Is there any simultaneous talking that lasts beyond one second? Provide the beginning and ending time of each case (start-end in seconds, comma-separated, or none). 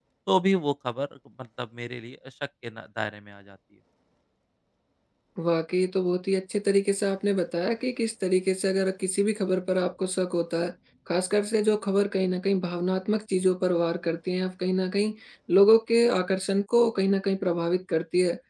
none